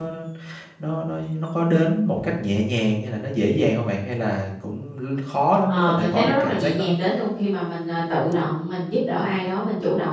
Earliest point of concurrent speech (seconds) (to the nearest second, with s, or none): 6 s